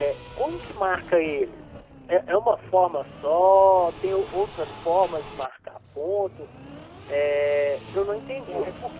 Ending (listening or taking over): listening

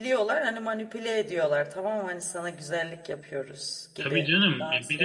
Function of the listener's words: taking over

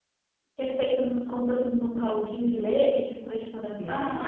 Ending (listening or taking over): taking over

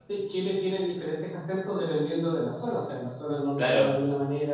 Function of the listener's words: listening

